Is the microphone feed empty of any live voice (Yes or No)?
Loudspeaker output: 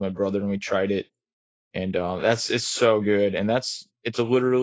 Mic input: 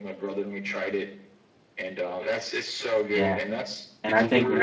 No